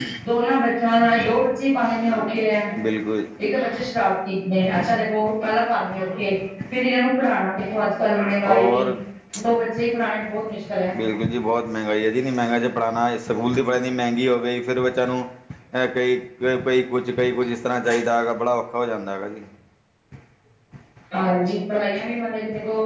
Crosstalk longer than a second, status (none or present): none